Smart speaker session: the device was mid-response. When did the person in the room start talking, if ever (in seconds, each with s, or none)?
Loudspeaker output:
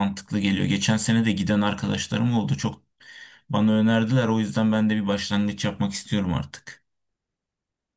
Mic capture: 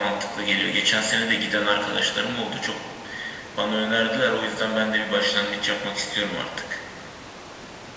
none